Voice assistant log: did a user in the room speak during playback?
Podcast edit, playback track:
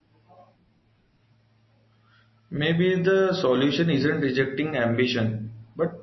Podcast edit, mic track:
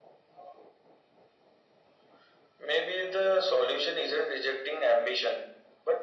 No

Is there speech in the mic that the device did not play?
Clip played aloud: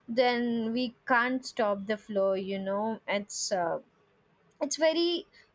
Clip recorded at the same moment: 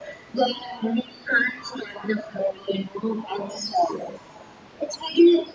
No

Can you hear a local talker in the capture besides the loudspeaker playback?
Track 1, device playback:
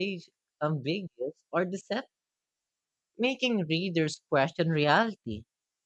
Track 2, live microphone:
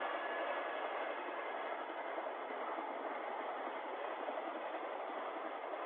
No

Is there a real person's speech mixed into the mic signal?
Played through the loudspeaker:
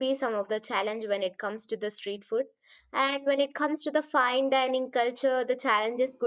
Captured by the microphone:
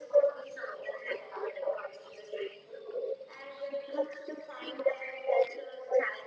No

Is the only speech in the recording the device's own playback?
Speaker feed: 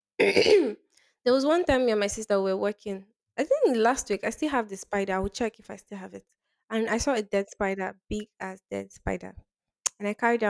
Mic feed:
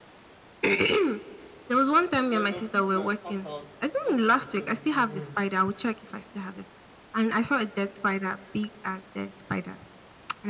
No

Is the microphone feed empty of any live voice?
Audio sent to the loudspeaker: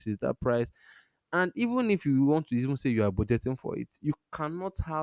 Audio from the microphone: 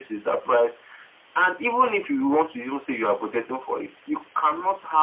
Yes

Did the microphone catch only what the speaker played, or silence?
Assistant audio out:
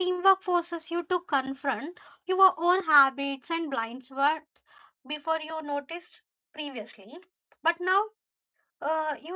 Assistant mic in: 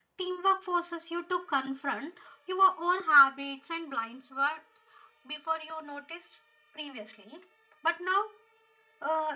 Yes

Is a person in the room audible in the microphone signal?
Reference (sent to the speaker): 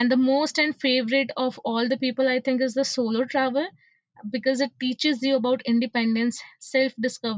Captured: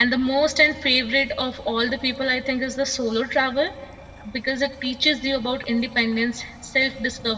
No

